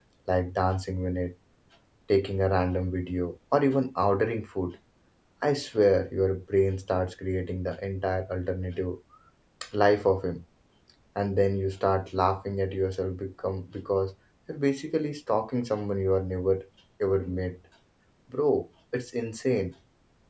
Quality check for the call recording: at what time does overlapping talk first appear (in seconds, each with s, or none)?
none